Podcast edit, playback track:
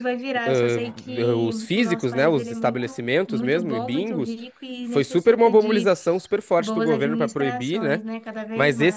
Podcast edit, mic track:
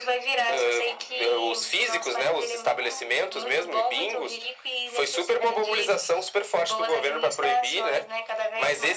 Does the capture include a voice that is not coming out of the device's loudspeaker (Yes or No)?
No